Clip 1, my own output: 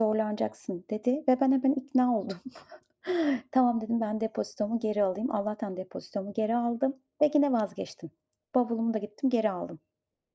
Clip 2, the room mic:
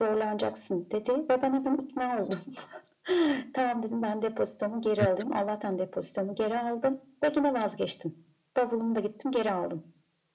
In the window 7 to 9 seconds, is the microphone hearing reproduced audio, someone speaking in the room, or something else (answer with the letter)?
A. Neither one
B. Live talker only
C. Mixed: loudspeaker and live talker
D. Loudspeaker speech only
D